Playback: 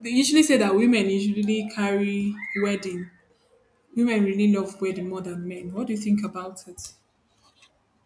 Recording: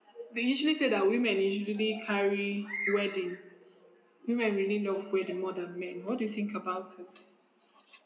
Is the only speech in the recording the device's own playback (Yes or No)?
Yes